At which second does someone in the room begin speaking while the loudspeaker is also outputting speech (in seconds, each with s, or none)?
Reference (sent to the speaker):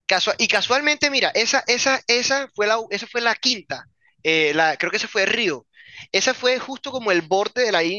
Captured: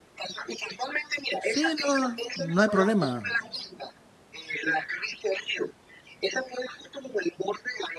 1.4 s